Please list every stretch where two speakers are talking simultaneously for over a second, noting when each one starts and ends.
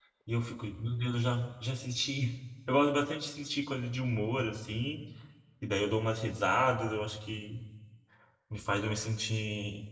none

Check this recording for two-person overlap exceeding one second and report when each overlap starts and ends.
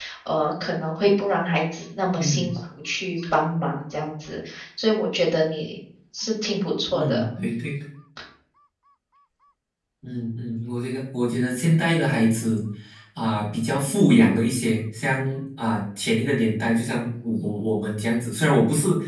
none

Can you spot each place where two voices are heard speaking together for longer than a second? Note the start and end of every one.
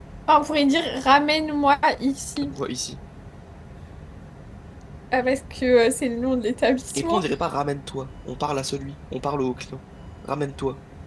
none

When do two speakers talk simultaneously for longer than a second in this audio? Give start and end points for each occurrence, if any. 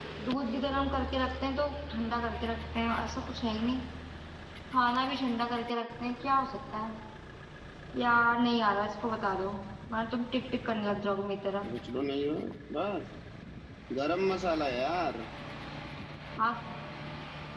none

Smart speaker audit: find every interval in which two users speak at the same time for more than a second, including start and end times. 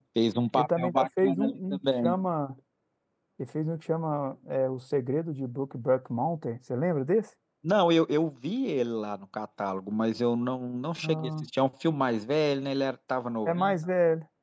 0.6-2.1

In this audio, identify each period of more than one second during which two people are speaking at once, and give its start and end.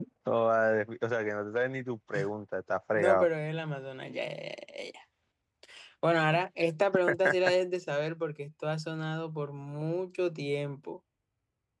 none

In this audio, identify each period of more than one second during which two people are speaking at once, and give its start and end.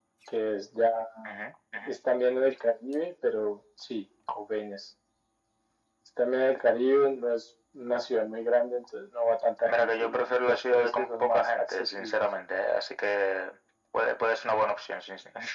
9.7-12.2

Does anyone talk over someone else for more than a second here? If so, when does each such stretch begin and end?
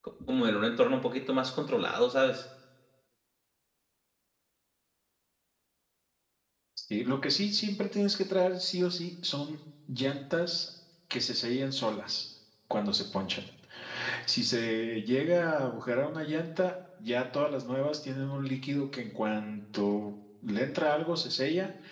none

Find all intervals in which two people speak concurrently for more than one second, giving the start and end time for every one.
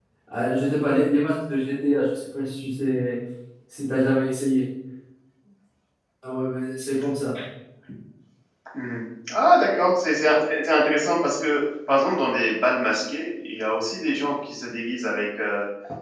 none

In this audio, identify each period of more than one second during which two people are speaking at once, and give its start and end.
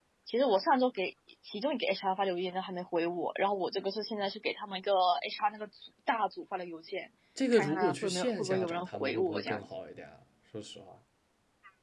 7.5-9.7

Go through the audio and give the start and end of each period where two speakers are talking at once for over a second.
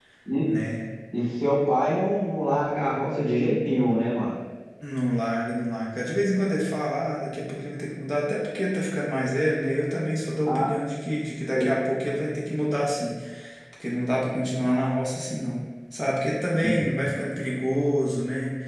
none

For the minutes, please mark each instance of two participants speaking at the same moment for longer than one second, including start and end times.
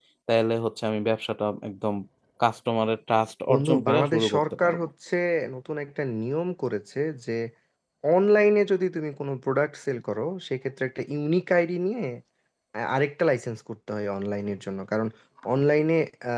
3.5-4.8

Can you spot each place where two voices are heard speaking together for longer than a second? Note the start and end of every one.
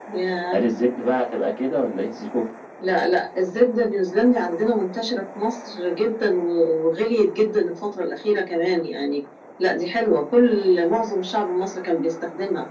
none

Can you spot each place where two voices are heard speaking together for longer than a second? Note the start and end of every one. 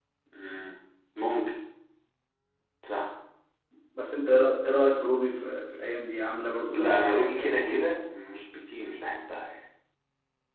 6.7-8.1

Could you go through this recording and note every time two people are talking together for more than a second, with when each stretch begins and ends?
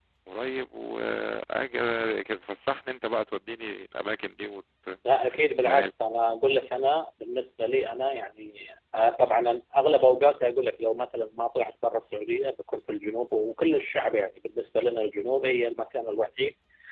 none

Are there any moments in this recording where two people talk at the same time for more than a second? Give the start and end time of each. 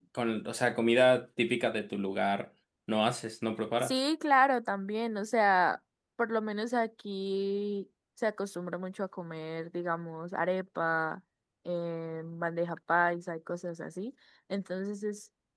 none

